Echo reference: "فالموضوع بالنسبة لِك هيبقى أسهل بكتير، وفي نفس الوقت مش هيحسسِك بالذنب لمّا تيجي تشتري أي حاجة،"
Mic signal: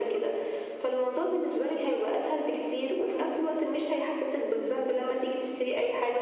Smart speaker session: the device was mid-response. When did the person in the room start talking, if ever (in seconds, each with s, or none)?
none